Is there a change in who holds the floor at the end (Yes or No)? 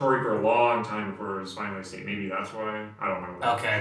Yes